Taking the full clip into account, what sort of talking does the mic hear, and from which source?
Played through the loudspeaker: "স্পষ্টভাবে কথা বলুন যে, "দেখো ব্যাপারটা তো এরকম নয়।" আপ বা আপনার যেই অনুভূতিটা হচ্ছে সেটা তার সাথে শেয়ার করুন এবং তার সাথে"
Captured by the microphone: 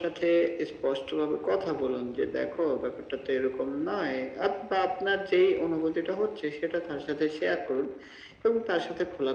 echo only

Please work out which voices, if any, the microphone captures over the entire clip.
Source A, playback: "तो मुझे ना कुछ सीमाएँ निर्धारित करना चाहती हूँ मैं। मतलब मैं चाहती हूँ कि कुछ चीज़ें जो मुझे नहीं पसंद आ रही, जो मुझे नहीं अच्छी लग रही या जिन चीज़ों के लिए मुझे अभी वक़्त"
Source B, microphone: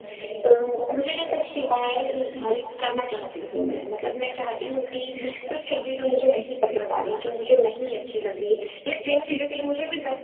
echo only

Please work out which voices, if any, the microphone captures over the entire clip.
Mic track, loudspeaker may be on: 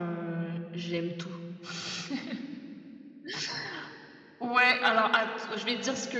echo only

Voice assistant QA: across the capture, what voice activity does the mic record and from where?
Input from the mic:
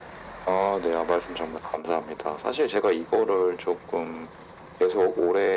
echo only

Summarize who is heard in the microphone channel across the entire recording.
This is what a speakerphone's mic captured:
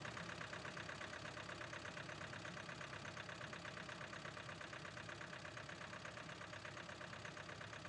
neither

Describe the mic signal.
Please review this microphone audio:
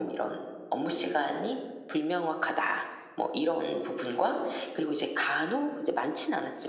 echo only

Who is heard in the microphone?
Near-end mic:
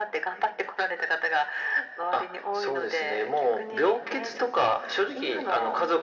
echo only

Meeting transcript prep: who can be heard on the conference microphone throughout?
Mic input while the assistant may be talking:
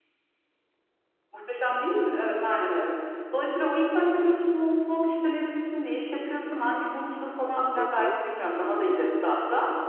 both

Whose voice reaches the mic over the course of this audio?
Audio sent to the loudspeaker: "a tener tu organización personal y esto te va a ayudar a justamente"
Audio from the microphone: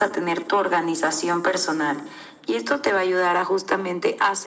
echo only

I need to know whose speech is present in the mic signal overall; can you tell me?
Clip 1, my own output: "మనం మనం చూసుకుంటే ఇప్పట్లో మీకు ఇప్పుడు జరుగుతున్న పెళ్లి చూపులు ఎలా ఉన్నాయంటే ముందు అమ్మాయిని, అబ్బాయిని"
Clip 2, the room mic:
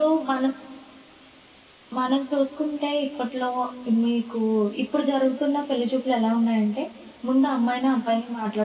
echo only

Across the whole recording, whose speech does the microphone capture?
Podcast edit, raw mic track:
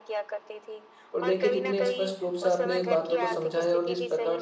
both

